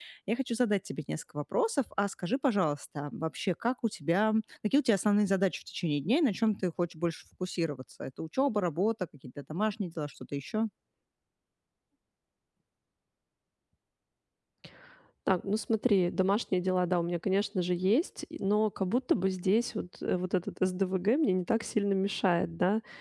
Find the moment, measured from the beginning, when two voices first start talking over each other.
none

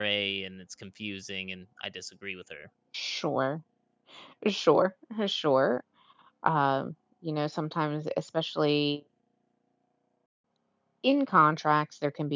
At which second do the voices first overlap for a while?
none

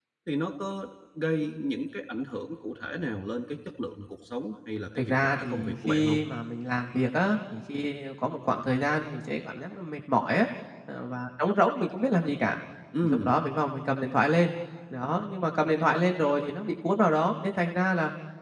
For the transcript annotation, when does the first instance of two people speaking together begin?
5.0 s

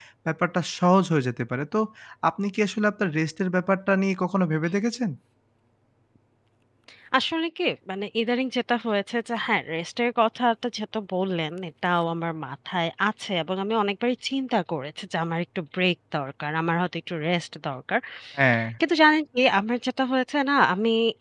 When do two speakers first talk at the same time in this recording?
none

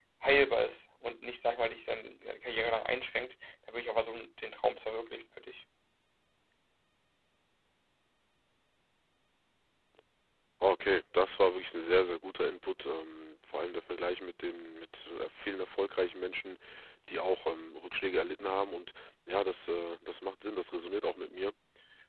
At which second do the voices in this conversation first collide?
none

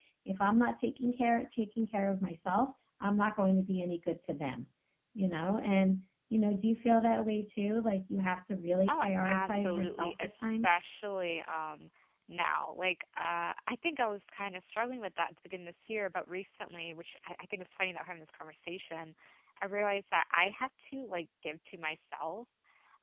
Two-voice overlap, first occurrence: 8.9 s

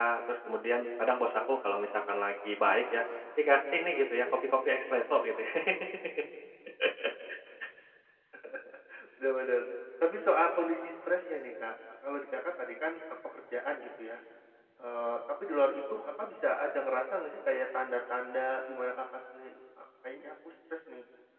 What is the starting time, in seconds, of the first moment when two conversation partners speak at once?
none

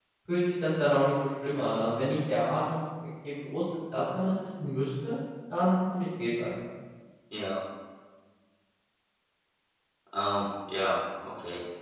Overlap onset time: none

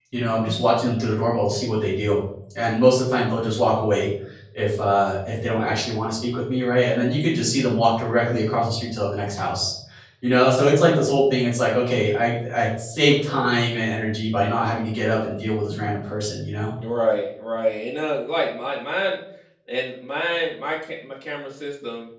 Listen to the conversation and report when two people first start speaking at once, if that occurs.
none

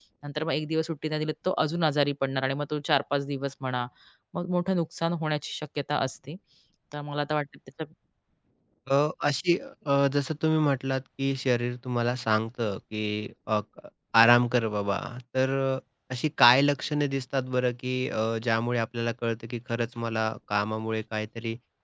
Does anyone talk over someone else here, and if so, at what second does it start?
none

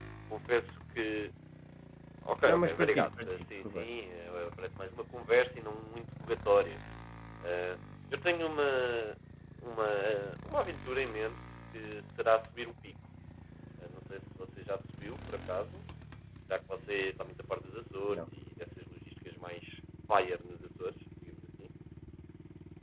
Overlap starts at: 2.5 s

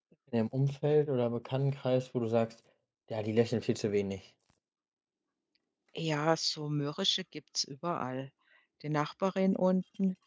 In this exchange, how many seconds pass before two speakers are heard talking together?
none

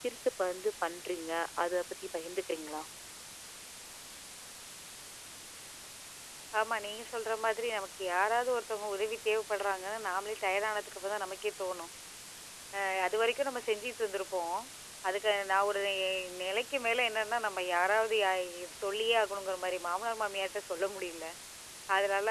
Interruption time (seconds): none

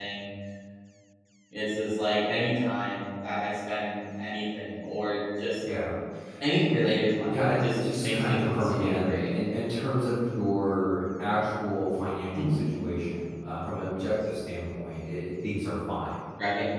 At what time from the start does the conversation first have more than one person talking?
7.3 s

